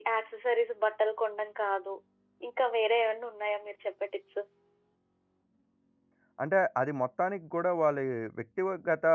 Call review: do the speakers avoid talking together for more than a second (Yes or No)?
Yes